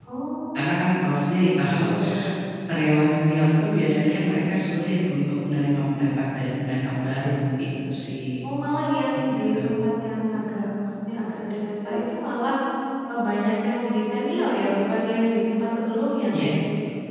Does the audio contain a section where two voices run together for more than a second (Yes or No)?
No